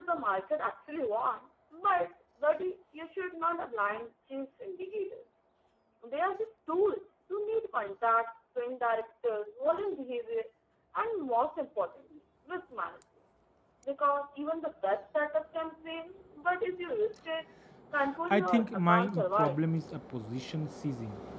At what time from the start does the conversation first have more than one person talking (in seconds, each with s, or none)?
18.3 s